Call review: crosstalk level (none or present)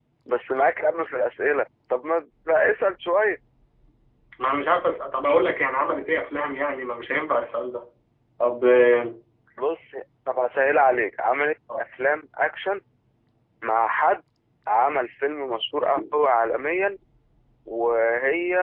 none